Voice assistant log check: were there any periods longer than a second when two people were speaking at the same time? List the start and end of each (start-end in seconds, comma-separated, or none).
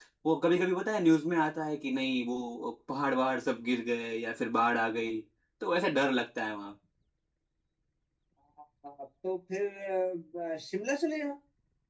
none